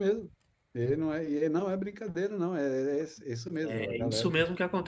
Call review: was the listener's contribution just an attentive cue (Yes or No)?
No